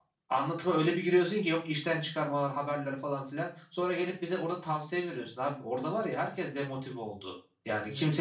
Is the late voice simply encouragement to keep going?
Yes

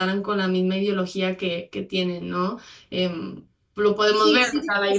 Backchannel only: No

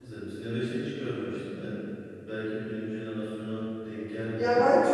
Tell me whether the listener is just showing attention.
No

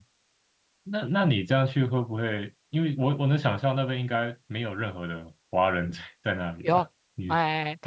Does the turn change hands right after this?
Yes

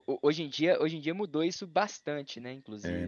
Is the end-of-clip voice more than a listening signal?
Yes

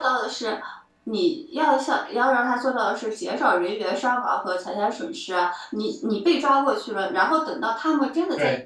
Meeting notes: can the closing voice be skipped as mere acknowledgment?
Yes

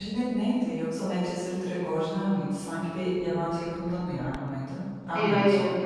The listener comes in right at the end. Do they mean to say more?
Yes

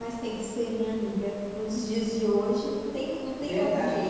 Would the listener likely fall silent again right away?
No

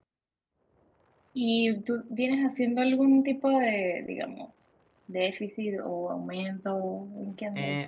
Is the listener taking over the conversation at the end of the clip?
Yes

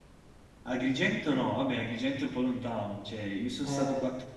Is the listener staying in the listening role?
Yes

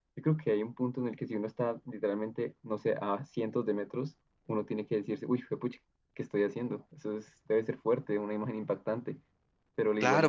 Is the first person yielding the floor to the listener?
Yes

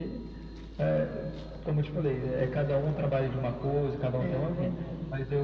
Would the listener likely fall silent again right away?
Yes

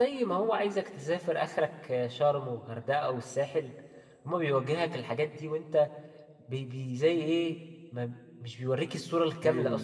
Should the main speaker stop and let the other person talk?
Yes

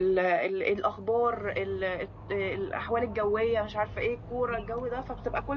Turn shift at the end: No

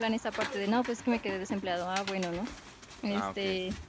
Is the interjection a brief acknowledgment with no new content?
No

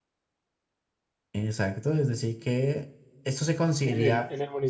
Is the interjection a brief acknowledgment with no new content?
No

